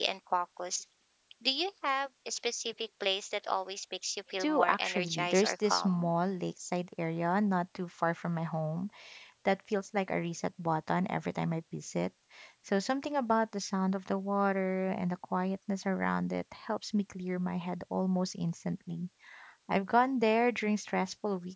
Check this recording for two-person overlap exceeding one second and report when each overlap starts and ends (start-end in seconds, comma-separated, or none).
4.4-6.1